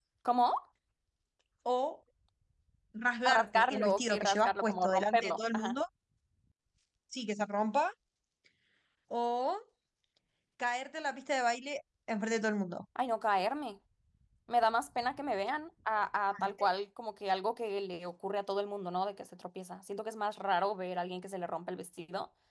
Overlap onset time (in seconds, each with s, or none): 3.2 s